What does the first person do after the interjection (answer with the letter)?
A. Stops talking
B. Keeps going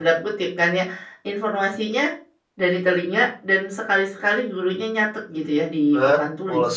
A